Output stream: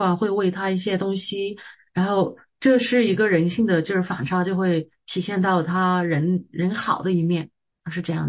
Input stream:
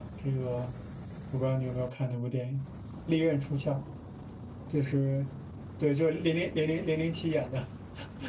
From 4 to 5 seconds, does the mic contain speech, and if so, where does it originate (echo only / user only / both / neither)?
user only